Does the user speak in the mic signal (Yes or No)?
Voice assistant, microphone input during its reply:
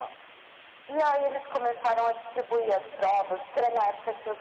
No